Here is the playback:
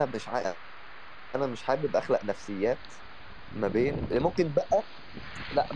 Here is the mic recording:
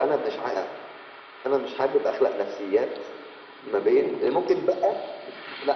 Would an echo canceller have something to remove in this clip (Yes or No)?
Yes